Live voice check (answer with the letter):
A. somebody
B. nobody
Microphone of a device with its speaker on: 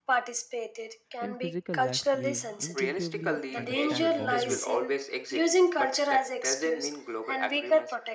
A